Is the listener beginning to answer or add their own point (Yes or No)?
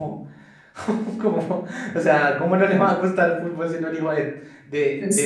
Yes